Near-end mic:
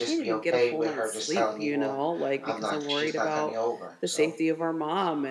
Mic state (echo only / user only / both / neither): both